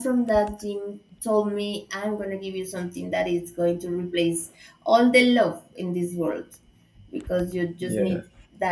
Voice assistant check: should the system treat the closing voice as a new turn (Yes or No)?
No